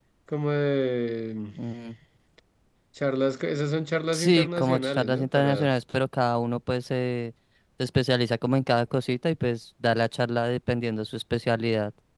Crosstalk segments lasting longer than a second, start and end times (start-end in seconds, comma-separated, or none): 4.1-5.7